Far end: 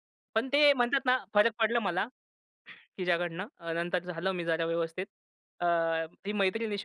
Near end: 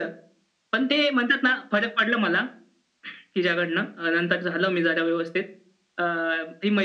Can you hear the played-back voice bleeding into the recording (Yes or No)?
Yes